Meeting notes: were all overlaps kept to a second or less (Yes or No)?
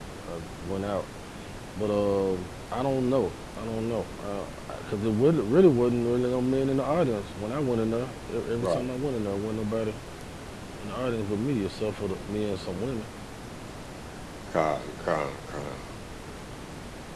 Yes